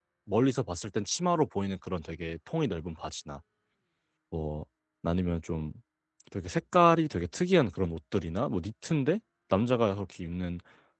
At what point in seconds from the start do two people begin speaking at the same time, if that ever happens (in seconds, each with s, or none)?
none